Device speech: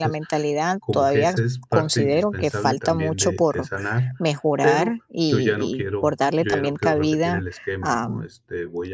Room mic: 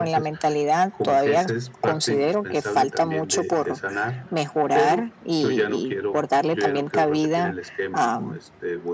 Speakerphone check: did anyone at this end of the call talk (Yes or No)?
No